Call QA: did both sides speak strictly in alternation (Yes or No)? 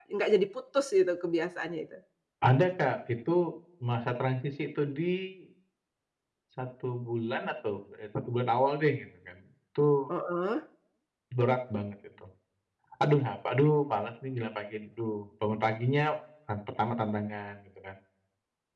Yes